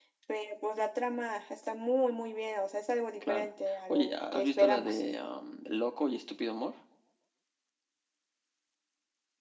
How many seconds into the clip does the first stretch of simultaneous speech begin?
3.2 s

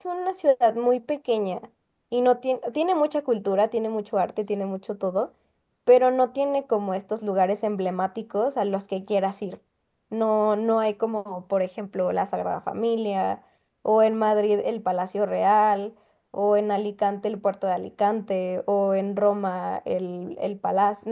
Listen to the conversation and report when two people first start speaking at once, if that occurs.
none

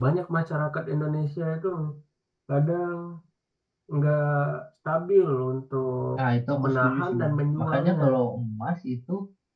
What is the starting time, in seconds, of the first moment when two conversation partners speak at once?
6.6 s

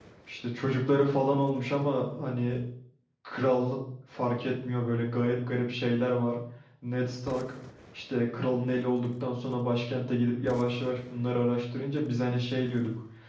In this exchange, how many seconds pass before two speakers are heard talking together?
none

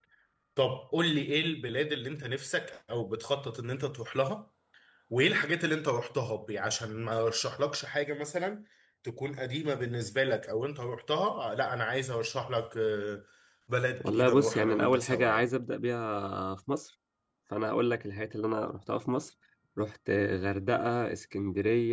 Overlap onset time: 14.0 s

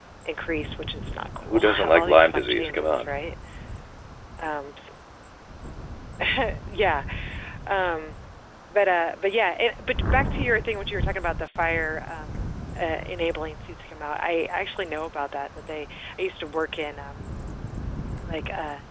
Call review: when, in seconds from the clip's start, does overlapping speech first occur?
1.4 s

